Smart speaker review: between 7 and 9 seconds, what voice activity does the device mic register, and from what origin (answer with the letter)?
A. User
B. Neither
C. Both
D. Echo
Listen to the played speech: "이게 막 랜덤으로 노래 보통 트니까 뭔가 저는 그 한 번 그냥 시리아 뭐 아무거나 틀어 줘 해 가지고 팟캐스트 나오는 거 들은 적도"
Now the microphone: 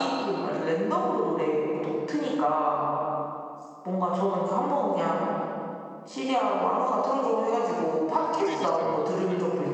C